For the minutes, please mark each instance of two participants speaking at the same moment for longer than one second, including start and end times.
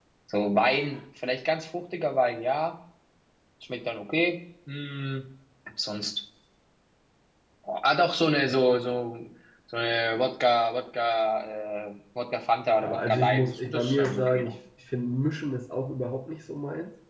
12.8-14.5

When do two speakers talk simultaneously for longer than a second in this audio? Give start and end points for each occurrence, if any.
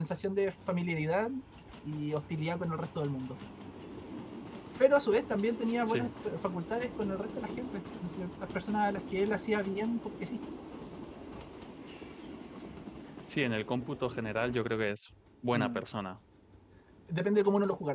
none

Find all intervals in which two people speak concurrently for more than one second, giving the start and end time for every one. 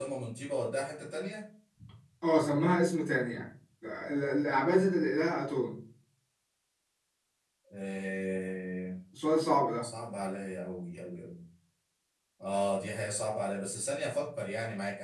none

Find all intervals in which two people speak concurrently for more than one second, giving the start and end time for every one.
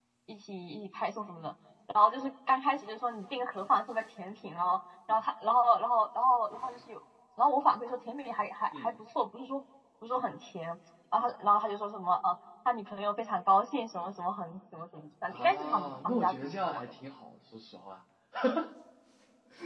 15.3-16.8

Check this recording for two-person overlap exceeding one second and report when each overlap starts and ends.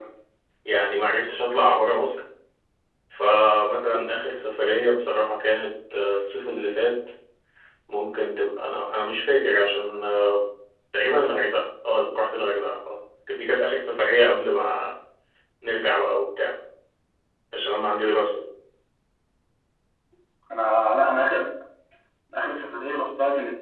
none

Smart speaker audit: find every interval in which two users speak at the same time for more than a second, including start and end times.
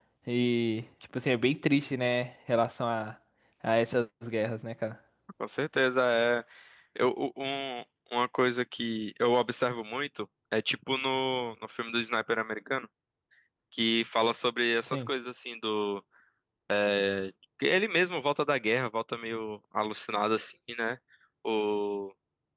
none

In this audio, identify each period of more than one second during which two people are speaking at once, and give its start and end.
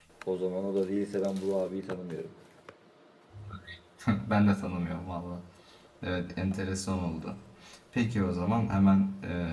none

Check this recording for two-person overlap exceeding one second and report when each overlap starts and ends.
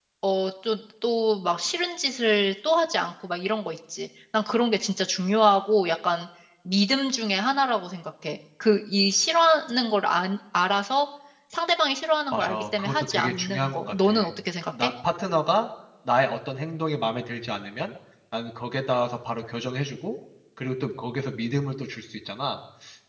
12.3-14.1

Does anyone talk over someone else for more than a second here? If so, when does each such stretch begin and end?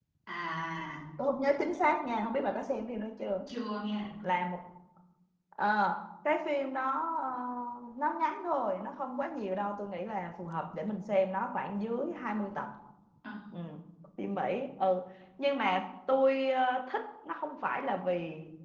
none

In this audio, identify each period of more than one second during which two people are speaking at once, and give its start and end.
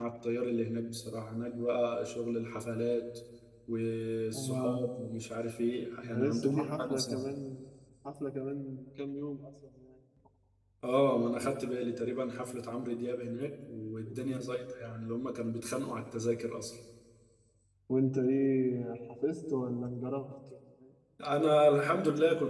6.0-7.3

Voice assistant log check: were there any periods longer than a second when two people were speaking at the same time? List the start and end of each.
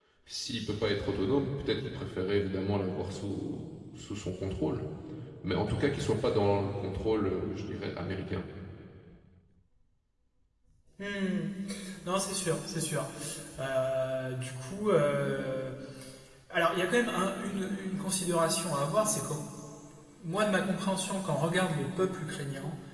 none

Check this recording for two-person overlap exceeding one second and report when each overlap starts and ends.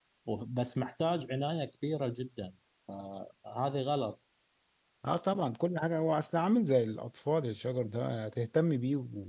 none

